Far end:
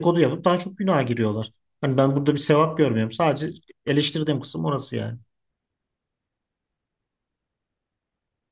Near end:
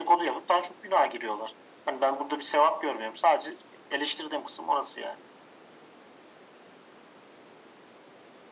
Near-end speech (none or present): none